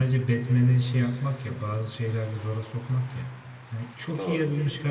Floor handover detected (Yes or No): No